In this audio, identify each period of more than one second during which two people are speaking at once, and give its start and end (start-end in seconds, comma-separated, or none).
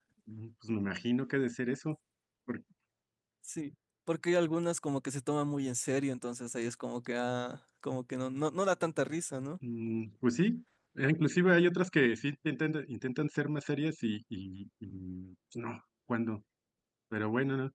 none